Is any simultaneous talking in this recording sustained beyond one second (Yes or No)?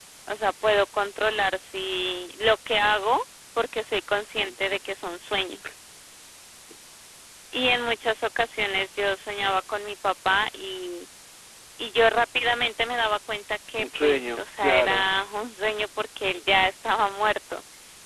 Yes